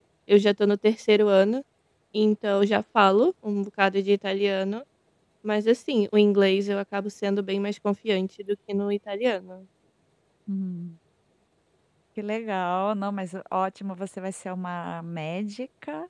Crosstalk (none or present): none